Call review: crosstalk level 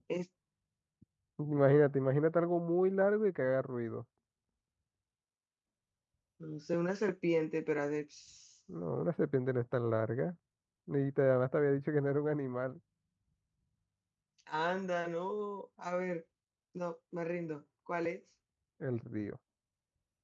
none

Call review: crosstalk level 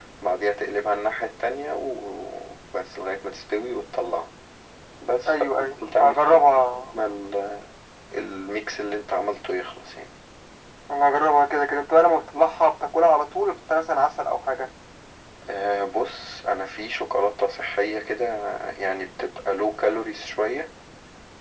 present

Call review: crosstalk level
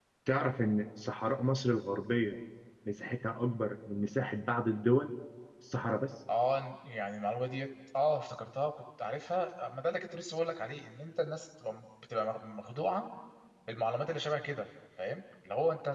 none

